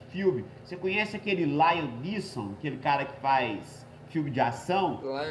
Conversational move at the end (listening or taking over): taking over